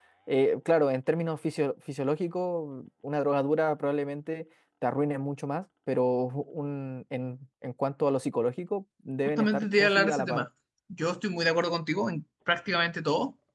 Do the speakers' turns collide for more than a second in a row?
Yes, from 9.2 s

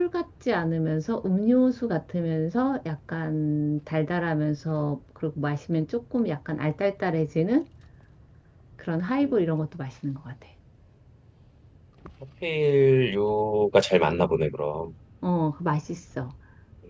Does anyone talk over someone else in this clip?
No

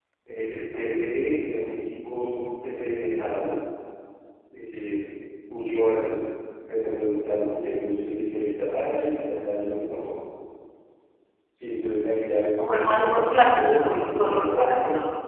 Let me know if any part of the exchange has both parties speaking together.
Yes, from 12.6 s

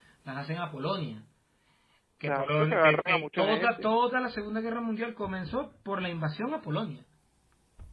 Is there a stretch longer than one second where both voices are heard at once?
Yes, from 2.2 s

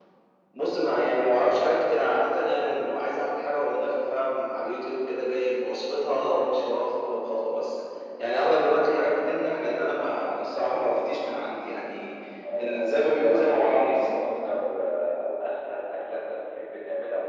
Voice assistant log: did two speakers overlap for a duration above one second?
Yes, from 12.6 s

